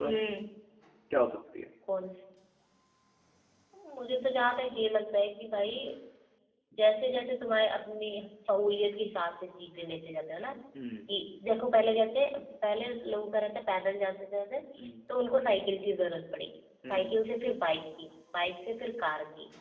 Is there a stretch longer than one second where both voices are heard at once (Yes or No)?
No